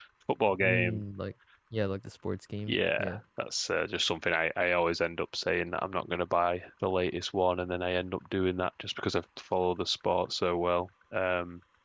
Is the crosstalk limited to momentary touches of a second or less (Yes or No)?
Yes